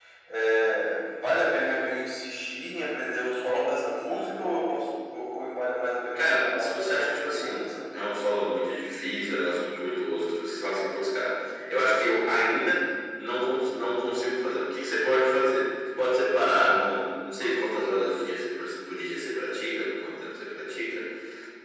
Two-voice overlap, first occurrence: 6.2 s

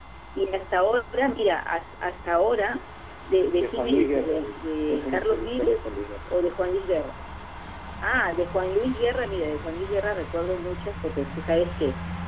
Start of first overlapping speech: 3.6 s

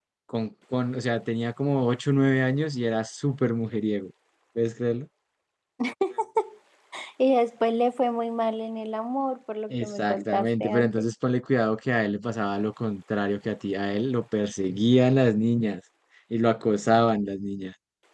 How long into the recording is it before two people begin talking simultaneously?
9.7 s

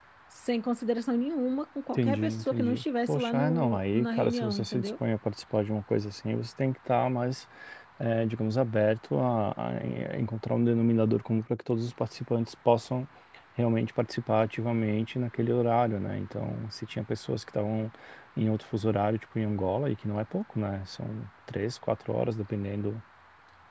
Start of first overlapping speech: 2.0 s

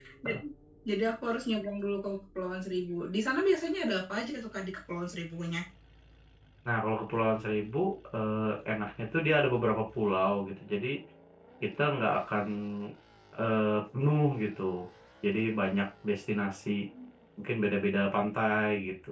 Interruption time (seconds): none

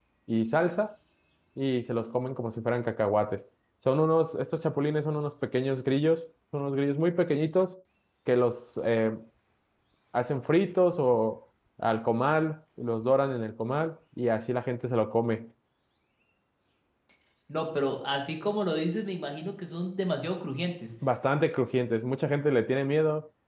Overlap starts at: none

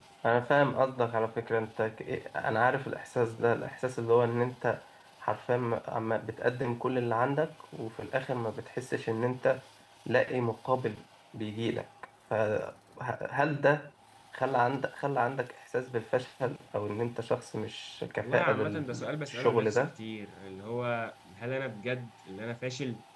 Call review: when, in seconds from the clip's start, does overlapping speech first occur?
18.2 s

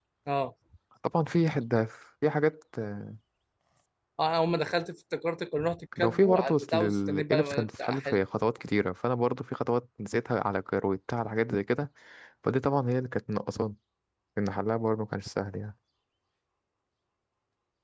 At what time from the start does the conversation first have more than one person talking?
5.9 s

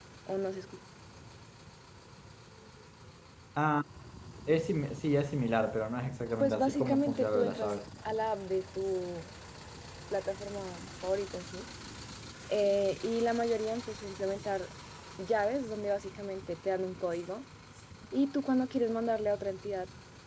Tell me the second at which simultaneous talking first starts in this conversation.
6.4 s

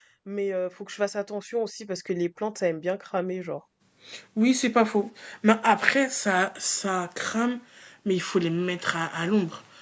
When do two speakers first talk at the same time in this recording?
none

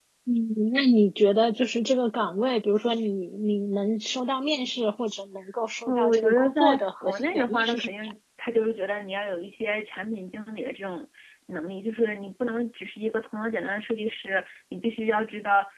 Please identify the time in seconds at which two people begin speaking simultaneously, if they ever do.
5.9 s

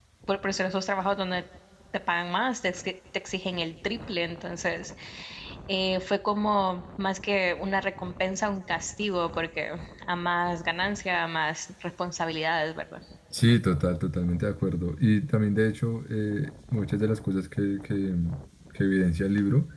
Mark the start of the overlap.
none

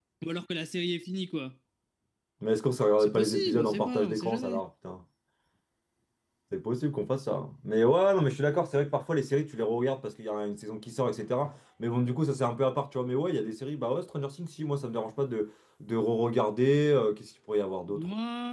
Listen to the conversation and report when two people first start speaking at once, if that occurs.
3.0 s

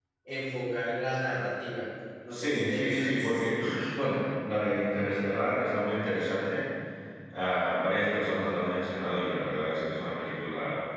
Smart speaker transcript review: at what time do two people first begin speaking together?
2.3 s

